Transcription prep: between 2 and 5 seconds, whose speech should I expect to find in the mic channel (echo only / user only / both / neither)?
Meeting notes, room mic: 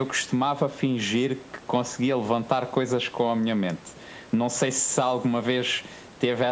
echo only